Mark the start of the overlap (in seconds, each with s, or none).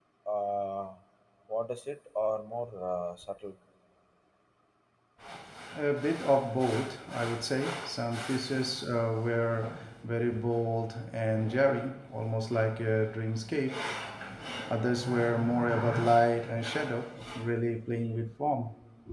none